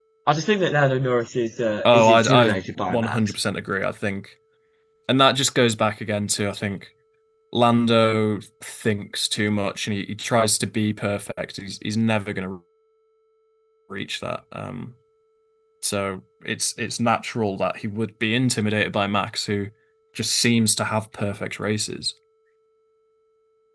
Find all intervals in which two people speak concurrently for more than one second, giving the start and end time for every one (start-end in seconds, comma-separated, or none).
1.9-3.2